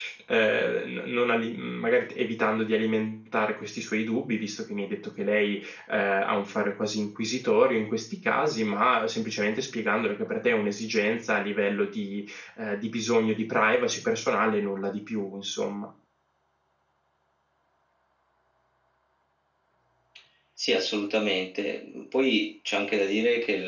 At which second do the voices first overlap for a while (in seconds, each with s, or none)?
none